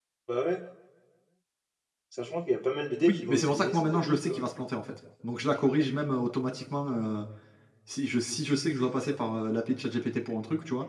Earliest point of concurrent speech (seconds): 3.0 s

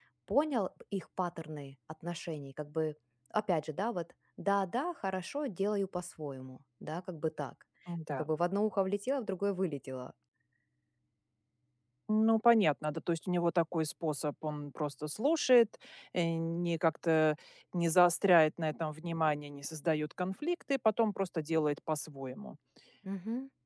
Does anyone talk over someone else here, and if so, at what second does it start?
none

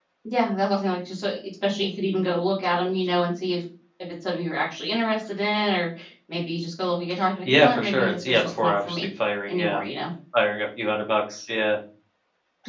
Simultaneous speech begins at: 7.4 s

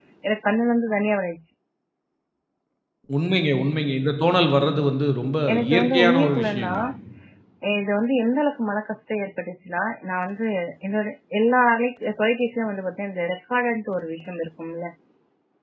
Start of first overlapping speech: 5.5 s

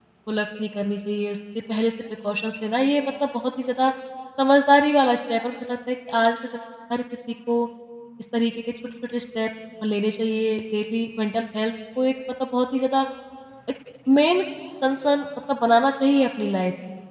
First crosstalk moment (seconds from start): none

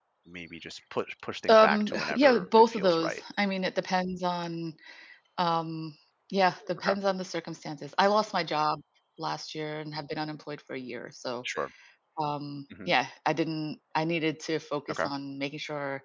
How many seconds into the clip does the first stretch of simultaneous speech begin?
1.4 s

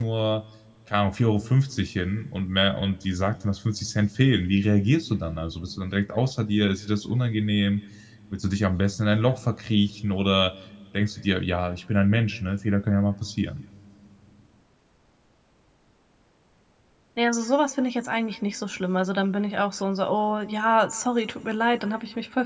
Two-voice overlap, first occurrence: none

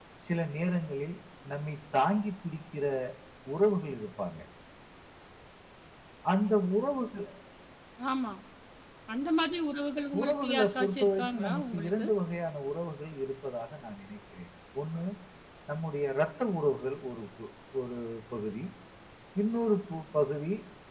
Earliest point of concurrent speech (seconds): 10.1 s

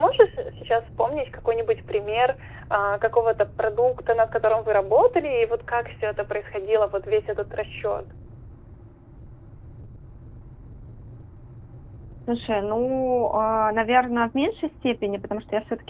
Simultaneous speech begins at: none

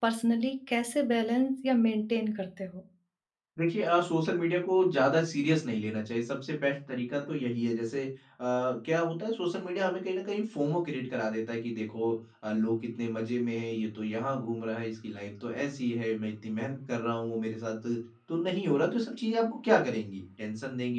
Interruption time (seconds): none

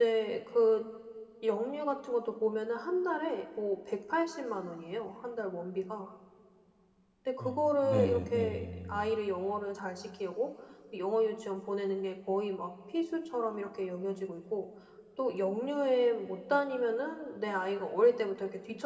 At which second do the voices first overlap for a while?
7.4 s

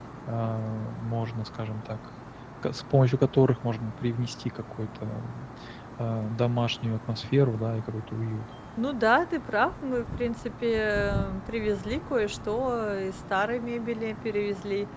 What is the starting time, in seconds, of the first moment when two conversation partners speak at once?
none

